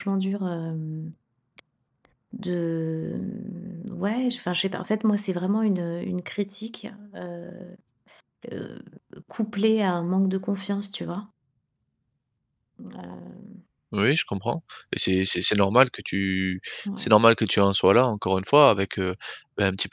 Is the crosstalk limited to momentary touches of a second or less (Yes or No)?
Yes